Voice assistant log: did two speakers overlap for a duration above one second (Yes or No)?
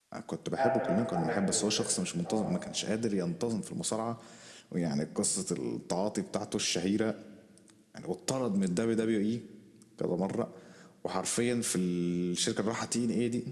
Yes